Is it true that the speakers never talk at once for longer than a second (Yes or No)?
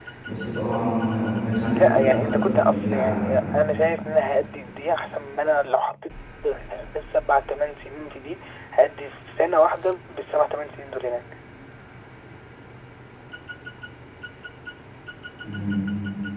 No